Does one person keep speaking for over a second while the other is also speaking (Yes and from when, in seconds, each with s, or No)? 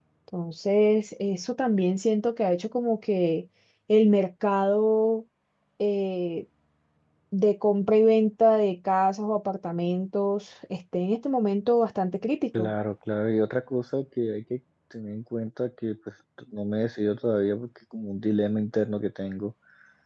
No